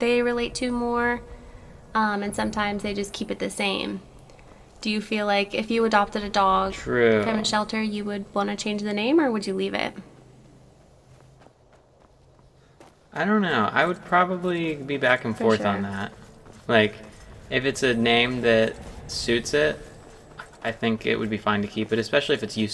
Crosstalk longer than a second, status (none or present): none